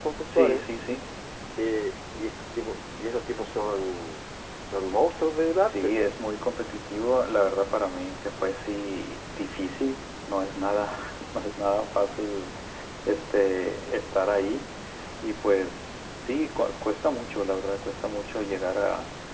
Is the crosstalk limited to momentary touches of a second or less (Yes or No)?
Yes